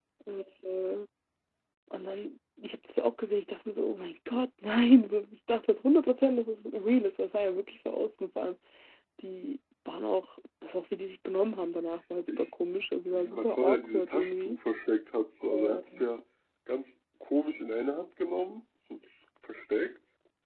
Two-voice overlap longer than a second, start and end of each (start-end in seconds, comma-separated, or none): 13.1-14.6